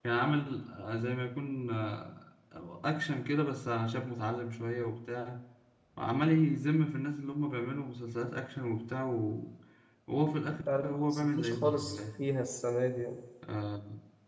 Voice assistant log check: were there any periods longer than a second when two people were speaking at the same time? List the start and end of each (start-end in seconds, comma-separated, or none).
10.8-12.2